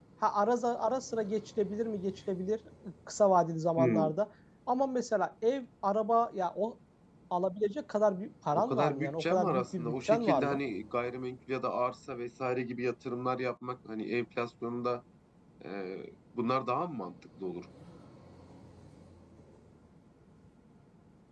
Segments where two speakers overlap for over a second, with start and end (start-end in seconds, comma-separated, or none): 8.5-10.6